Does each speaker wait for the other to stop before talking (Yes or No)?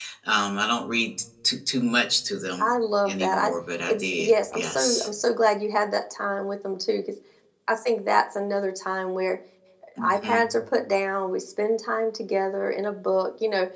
No